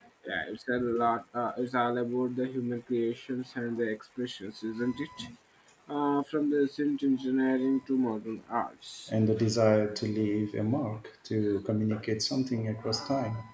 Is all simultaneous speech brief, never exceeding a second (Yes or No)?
Yes